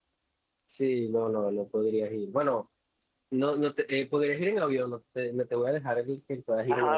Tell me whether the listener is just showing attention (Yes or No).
No